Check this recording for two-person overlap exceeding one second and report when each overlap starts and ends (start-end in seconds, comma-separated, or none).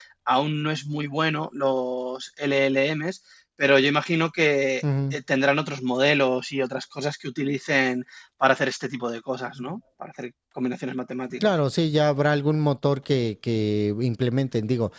none